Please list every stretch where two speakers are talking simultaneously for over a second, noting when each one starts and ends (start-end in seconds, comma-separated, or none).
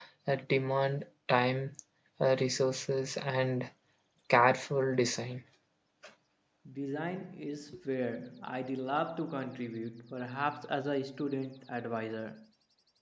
none